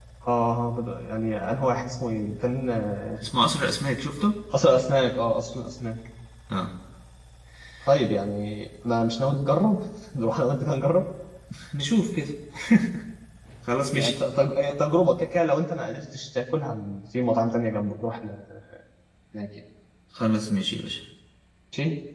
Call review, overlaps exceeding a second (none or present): none